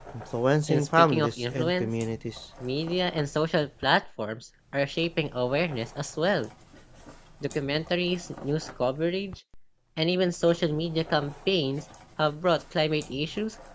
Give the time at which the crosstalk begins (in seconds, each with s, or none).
0.7 s